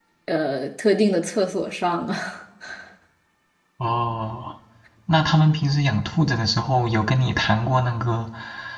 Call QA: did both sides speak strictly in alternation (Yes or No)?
Yes